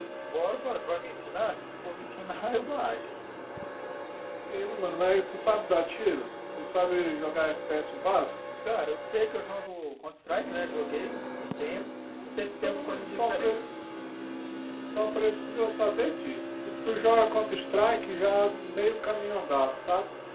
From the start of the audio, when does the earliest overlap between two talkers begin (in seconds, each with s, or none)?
12.4 s